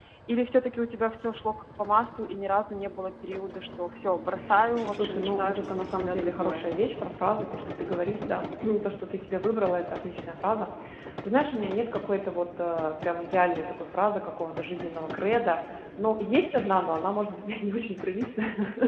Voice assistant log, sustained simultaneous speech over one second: present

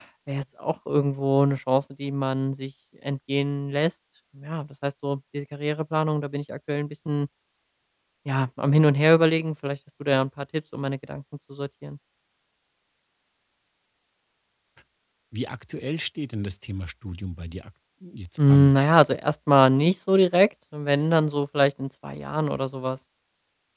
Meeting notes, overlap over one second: none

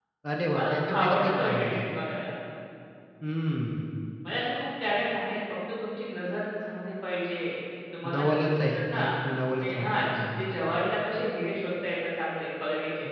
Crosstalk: present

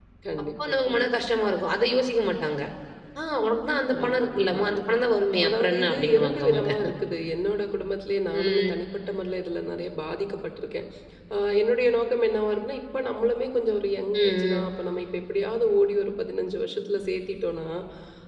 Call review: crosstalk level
present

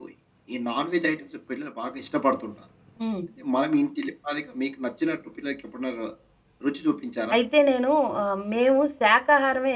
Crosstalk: none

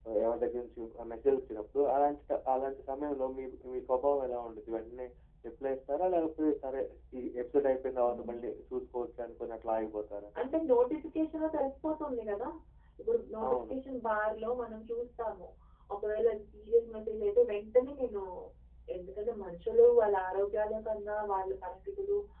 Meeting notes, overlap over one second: none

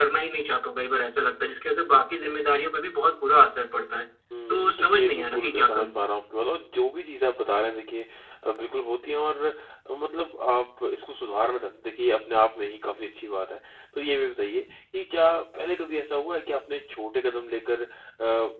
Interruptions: present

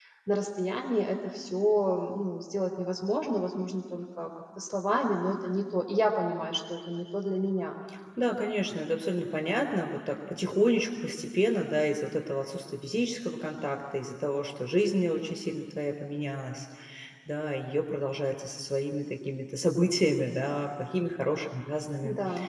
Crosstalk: none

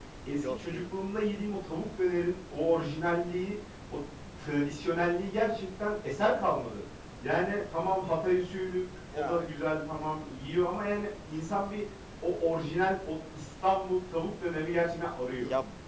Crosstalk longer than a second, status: none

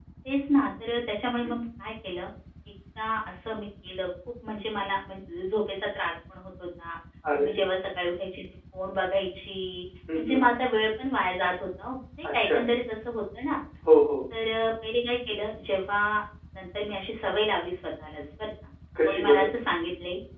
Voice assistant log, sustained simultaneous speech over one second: none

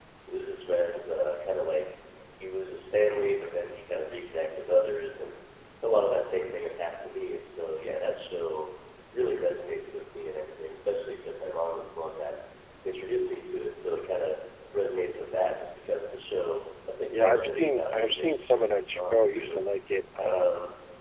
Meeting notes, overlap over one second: present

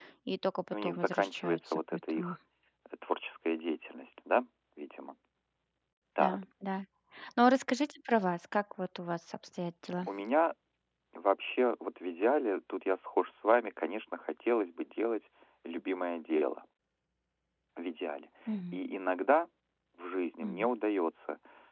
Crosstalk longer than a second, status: present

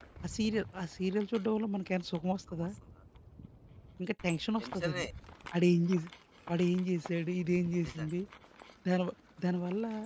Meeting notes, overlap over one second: none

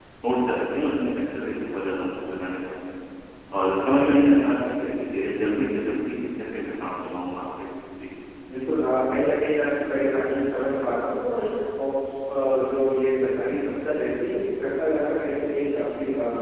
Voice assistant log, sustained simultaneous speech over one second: none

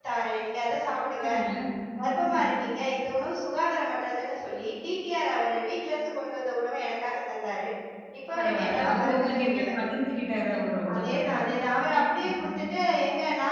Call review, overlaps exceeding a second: present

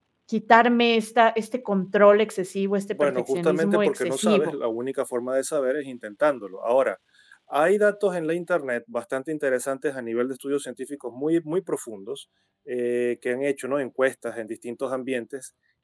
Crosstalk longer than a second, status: present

